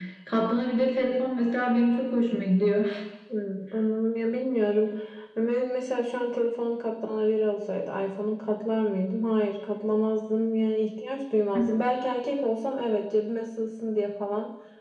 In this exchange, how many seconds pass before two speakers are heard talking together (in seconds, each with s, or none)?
none